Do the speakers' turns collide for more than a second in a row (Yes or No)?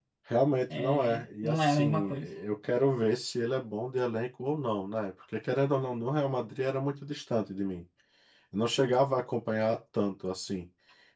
Yes